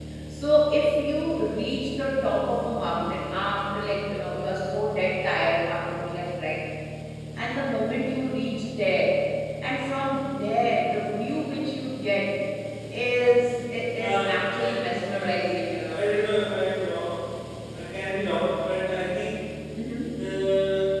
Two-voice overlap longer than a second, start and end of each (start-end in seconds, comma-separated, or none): 14.0-15.3